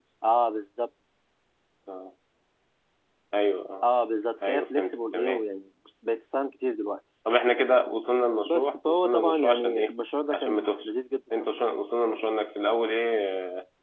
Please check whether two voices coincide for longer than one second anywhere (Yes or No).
Yes